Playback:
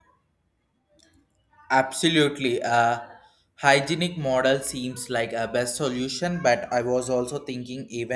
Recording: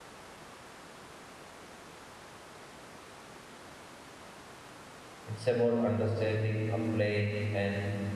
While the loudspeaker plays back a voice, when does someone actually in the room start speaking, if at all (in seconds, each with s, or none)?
5.3 s